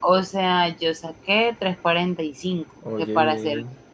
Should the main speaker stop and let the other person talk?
No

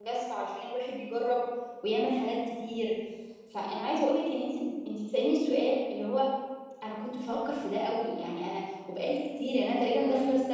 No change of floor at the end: Yes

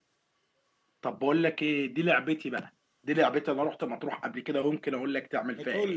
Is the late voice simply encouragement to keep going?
No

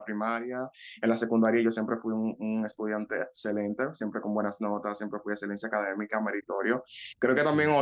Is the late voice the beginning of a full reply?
No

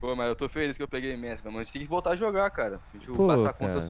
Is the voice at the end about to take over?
Yes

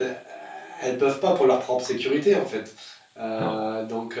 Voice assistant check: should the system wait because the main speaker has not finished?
Yes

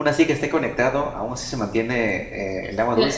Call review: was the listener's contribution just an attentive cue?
No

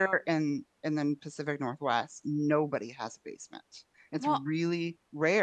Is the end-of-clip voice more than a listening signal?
No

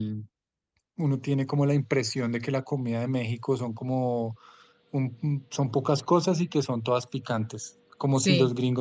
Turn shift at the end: No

